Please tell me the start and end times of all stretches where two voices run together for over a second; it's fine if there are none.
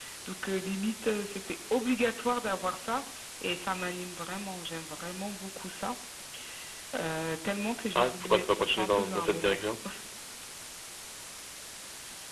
8.0-9.6

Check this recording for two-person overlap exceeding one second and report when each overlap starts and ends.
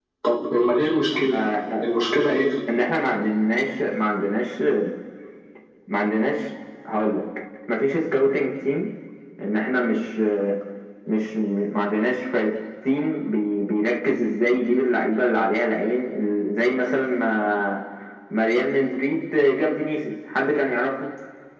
none

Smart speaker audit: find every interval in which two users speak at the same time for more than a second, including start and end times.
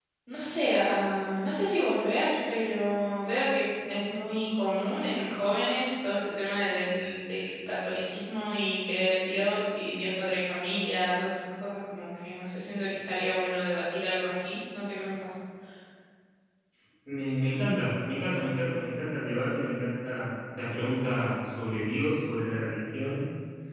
none

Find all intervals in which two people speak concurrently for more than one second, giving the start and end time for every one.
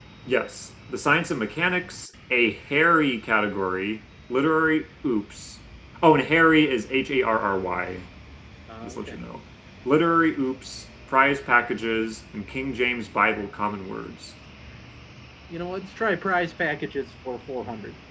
none

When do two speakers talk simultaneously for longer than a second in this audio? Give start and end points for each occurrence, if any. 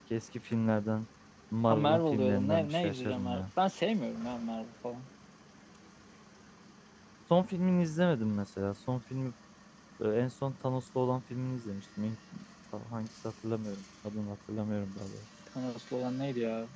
1.6-3.4

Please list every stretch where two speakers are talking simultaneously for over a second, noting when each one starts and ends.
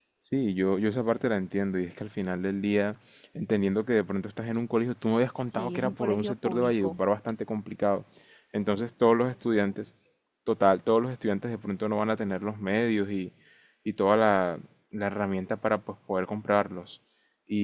5.5-7.0

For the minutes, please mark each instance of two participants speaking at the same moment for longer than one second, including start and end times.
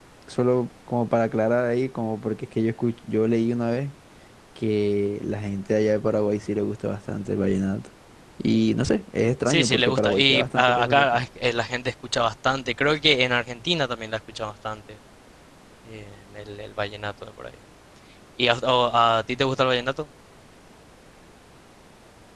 9.5-11.2

